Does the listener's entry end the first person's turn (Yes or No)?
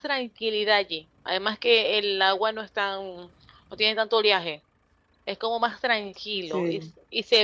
No